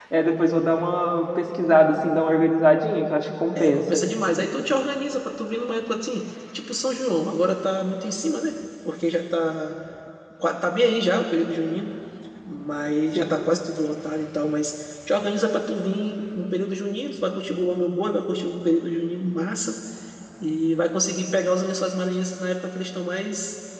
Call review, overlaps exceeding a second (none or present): none